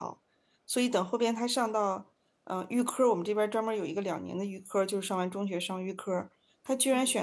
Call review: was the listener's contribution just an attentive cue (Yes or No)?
Yes